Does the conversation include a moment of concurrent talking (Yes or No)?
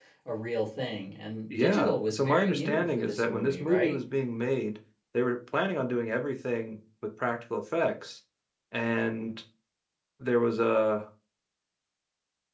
Yes